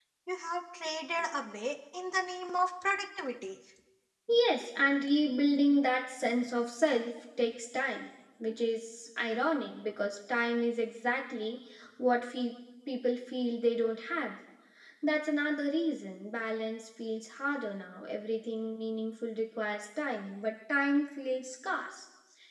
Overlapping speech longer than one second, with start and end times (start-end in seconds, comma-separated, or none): none